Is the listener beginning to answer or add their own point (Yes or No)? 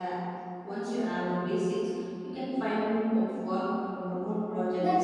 Yes